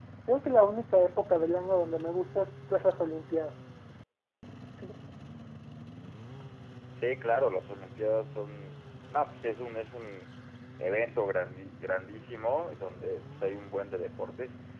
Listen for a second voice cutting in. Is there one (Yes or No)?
No